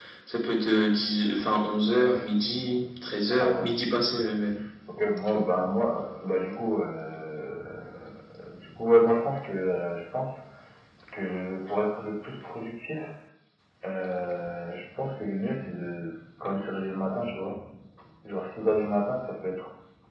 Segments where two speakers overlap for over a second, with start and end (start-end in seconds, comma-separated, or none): none